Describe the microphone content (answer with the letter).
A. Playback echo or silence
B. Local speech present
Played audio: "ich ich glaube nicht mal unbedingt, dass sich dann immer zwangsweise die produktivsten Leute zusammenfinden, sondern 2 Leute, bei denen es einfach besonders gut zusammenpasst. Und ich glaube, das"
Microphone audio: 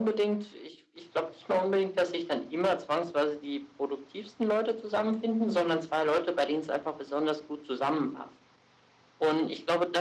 A